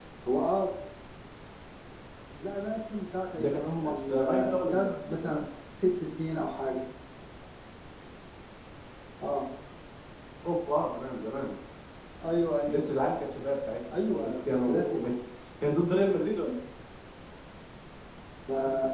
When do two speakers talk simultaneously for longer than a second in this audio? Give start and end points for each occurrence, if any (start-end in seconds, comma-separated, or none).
3.4-5.4, 13.9-15.2